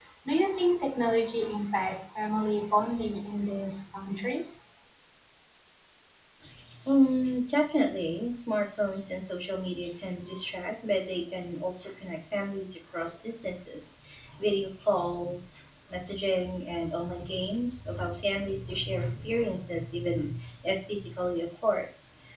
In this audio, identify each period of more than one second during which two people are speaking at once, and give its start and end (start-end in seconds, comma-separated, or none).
none